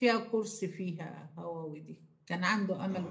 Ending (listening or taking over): listening